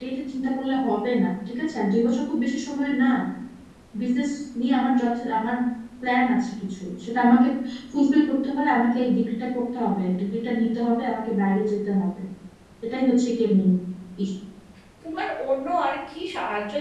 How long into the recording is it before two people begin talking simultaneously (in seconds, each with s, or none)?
none